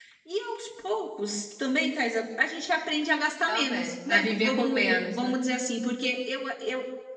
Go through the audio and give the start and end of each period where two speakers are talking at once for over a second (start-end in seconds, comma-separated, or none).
3.5-5.3